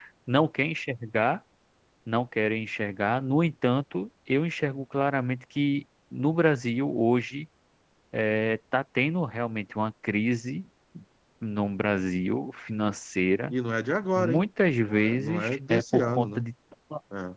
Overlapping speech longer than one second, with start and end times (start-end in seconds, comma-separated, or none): 14.9-16.4